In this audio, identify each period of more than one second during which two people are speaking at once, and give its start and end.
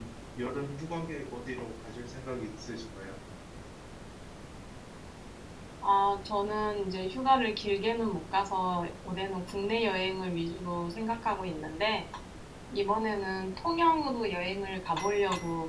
none

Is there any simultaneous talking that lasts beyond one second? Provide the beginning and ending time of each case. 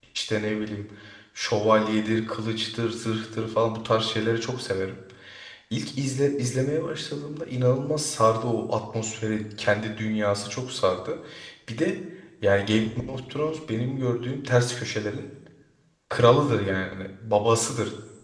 none

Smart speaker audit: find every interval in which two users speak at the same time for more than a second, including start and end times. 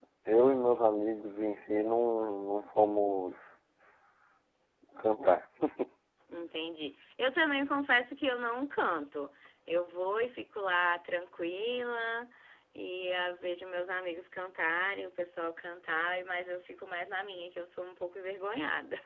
none

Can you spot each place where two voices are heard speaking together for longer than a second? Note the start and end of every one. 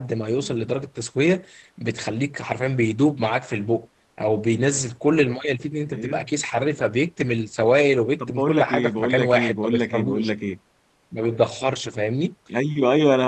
8.3-10.3

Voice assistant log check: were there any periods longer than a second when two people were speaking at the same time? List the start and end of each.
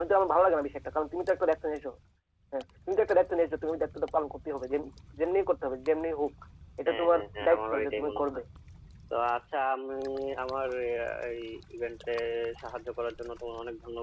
6.9-8.2

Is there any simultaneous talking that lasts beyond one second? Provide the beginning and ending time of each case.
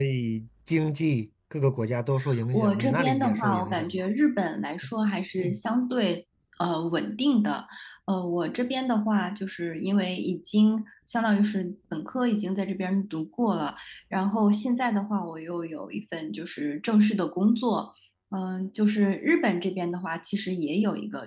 2.5-4.1

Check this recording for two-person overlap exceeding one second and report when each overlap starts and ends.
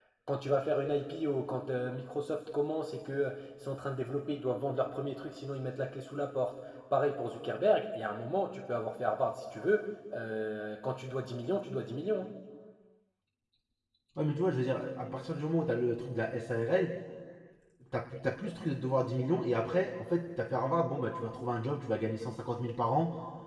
none

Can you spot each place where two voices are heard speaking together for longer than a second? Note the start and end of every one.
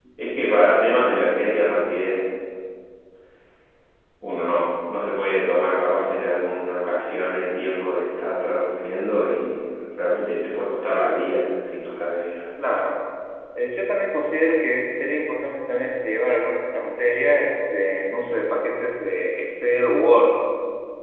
none

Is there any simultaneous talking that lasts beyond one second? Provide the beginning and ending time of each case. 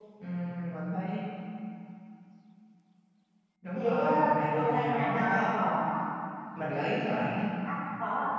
3.8-5.8

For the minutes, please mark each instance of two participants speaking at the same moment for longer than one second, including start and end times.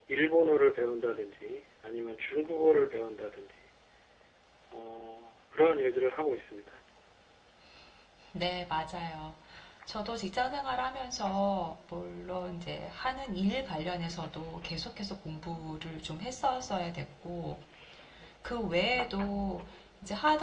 none

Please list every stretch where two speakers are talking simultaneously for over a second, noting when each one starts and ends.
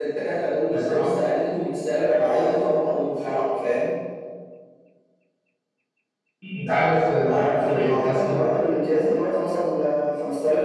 7.2-8.4

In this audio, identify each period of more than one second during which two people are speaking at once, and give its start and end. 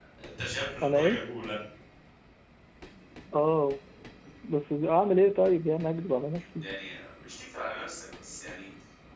none

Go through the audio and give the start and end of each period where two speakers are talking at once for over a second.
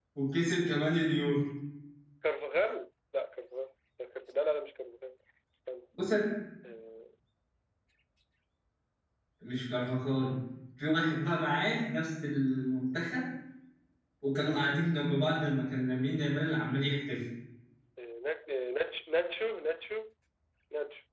none

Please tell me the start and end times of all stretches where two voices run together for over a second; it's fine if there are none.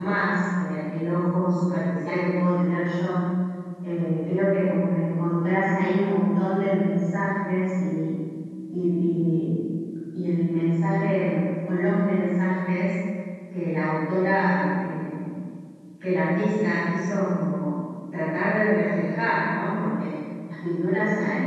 none

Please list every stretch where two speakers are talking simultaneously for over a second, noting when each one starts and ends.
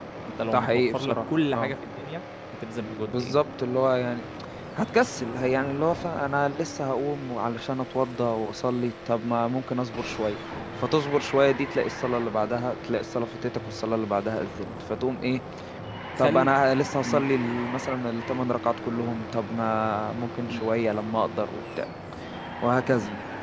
0.5-1.7

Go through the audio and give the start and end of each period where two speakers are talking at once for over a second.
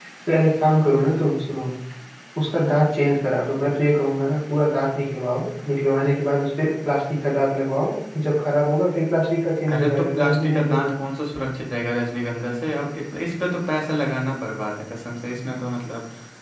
9.7-10.9

